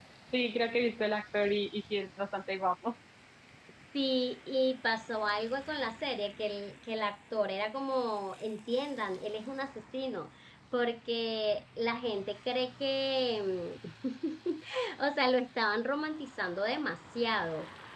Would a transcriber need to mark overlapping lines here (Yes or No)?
No